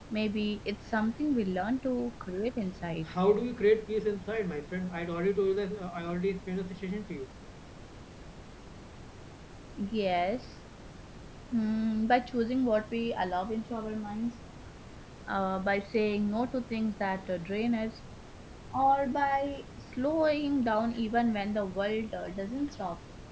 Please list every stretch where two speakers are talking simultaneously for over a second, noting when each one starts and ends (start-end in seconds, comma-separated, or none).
none